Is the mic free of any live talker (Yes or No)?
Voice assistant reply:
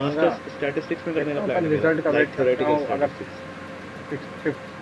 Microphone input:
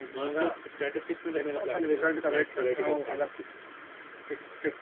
Yes